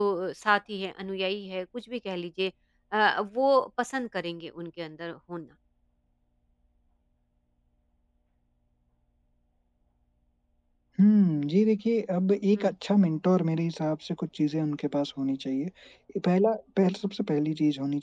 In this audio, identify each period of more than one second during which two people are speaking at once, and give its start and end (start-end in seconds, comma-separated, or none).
none